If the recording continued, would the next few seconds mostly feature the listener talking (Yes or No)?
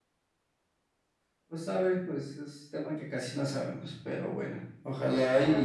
No